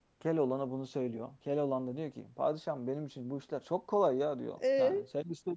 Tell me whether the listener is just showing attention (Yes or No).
Yes